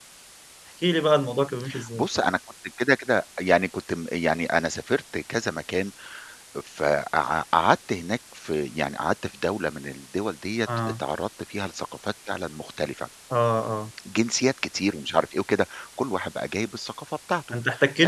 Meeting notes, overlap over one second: none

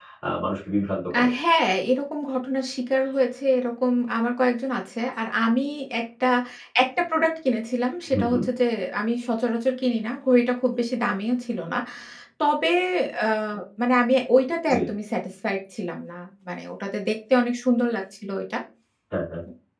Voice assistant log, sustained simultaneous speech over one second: none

